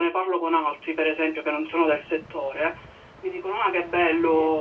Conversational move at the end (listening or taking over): listening